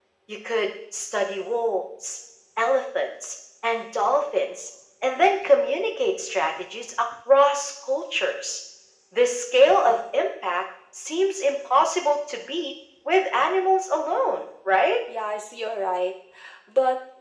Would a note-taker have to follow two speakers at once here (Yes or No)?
No